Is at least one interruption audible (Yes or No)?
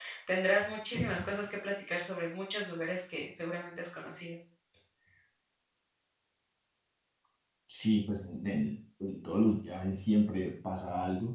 No